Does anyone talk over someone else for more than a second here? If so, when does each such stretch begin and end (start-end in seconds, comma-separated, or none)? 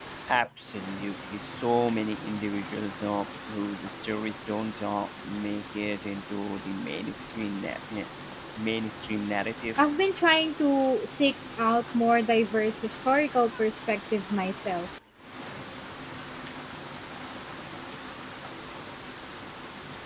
none